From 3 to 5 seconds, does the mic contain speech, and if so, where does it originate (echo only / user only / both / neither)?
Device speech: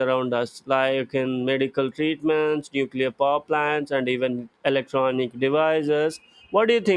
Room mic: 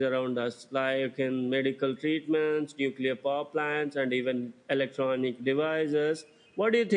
echo only